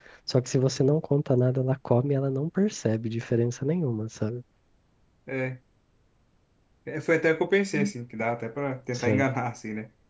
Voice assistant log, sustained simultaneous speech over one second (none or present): none